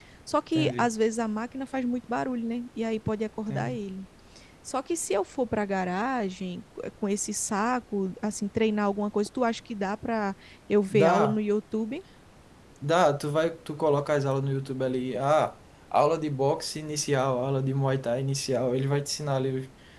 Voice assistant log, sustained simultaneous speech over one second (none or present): none